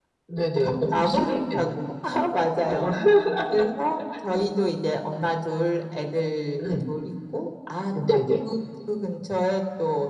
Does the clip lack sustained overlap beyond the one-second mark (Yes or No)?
No